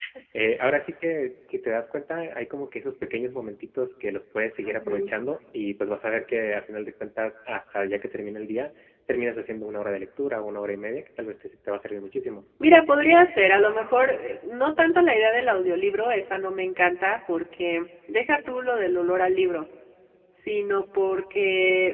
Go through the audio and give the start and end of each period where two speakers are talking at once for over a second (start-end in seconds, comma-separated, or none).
none